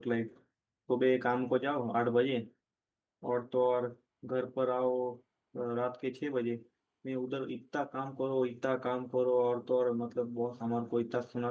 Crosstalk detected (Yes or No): No